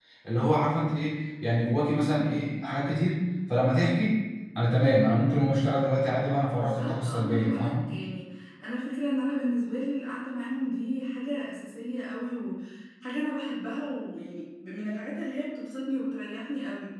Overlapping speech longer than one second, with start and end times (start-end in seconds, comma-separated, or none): 6.5-7.9